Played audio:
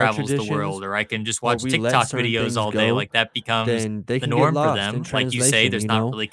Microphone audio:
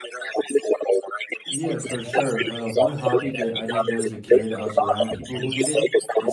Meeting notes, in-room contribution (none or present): present